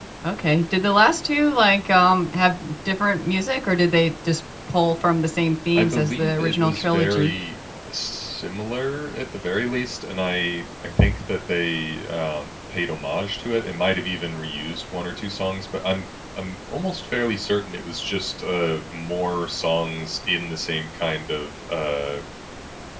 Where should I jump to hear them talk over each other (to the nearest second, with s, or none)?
6 s